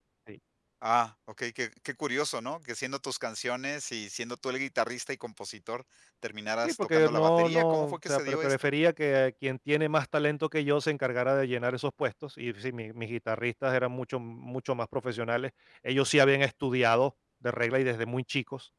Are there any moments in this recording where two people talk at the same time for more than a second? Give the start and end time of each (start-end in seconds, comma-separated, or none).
6.6-8.7